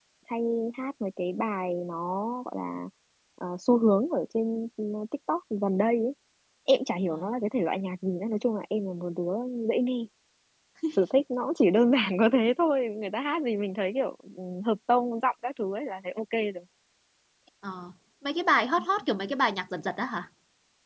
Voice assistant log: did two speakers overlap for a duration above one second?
No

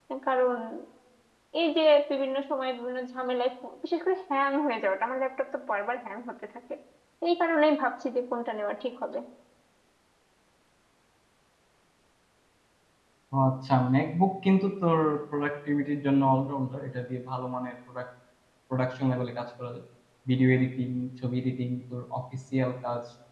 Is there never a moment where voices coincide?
Yes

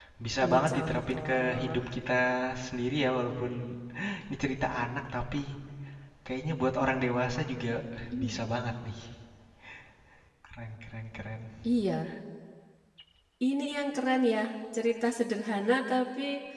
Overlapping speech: Yes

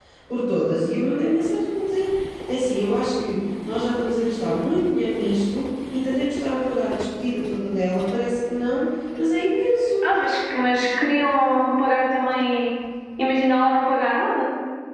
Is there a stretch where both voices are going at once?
No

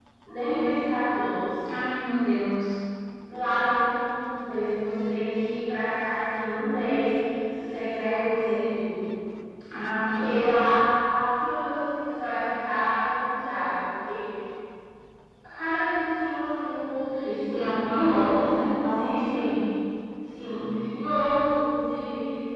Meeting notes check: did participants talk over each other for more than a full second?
Yes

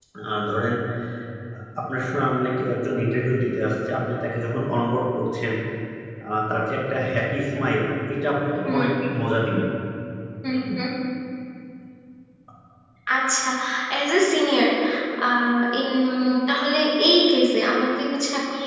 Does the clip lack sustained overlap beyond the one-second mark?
Yes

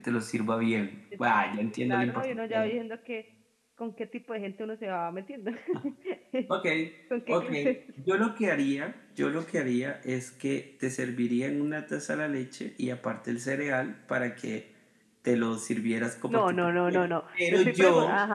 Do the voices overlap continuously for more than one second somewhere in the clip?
Yes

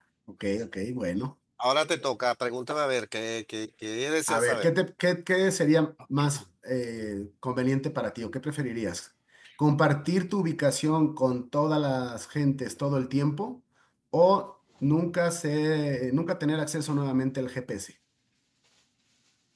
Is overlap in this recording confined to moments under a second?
Yes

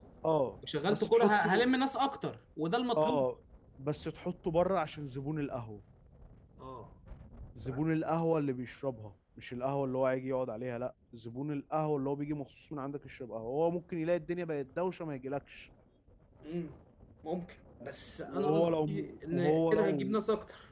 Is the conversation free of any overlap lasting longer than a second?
No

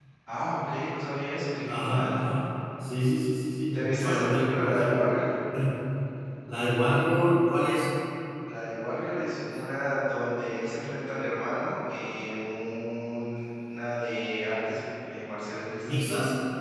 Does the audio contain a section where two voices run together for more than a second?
Yes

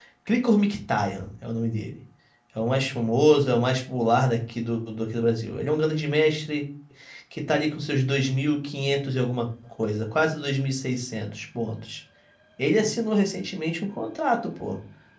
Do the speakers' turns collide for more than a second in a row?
No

